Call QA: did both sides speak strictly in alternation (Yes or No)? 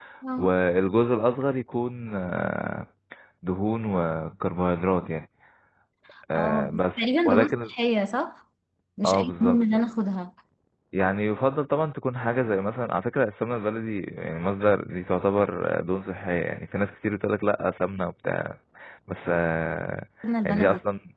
No